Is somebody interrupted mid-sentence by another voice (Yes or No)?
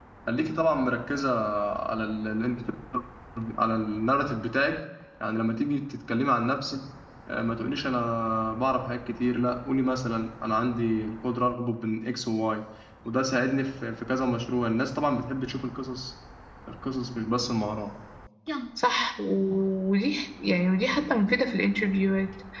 No